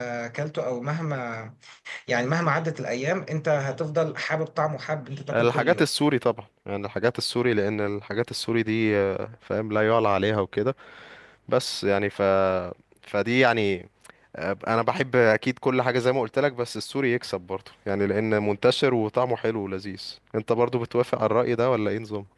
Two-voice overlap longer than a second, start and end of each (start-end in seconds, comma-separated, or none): none